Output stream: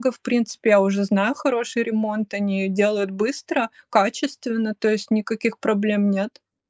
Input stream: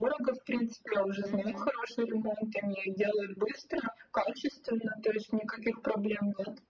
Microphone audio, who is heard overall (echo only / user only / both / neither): both